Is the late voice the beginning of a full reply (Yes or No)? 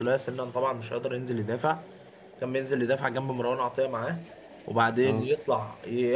No